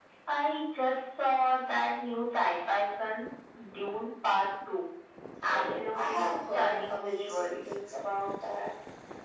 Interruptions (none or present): present